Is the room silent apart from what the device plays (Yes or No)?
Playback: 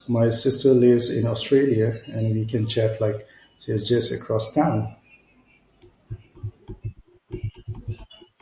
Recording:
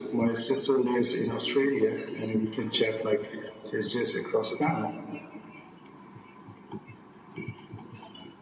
Yes